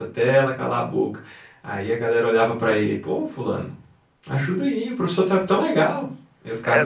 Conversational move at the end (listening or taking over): taking over